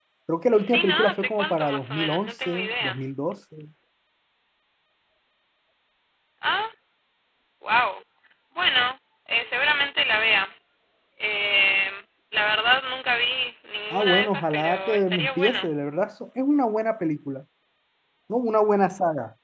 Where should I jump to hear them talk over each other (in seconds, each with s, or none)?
0.5 s